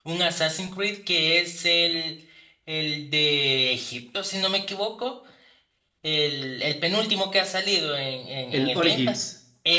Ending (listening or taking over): listening